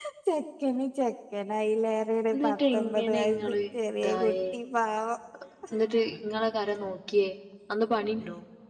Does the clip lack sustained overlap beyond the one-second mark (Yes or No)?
No